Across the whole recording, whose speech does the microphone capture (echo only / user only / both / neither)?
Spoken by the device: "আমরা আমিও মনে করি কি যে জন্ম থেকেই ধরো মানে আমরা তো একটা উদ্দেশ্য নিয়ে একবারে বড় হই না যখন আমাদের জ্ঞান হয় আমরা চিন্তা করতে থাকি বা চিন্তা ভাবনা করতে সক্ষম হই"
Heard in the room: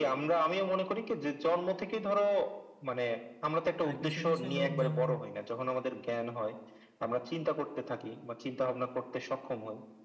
both